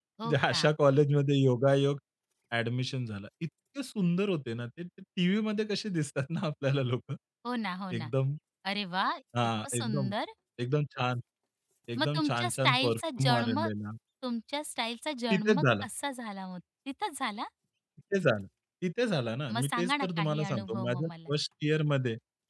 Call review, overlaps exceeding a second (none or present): present